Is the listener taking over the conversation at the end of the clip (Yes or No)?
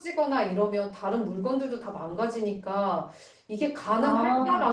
No